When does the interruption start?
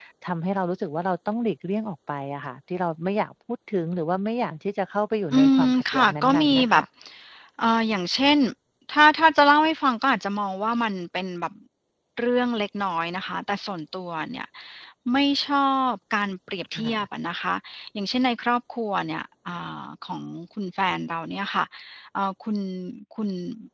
5.3 s

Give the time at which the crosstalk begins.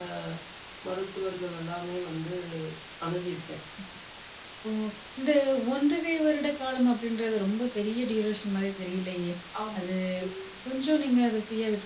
none

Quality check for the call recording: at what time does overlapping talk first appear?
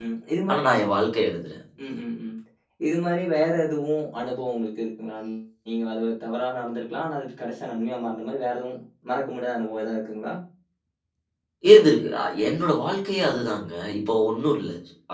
none

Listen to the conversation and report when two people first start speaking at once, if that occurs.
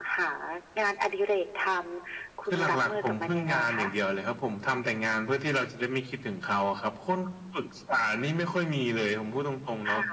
2.5 s

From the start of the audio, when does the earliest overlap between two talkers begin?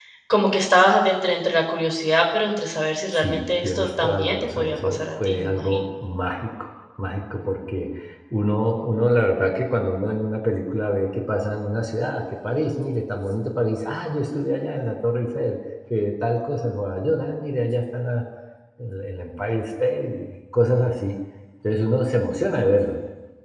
3.1 s

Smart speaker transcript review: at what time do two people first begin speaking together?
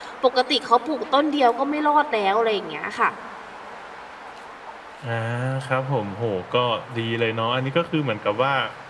none

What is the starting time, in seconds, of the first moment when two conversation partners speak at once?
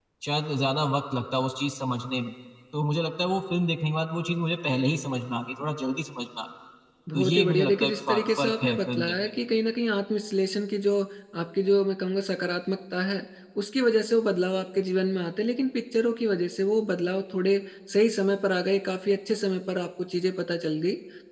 7.1 s

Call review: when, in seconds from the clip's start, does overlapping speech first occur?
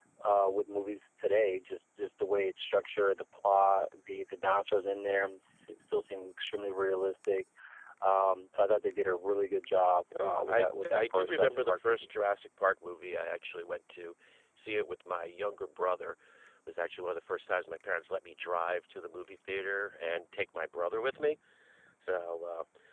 10.1 s

